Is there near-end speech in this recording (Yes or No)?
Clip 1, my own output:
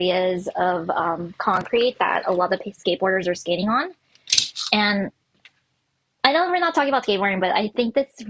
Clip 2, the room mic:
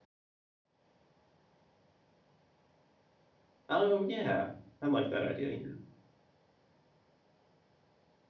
Yes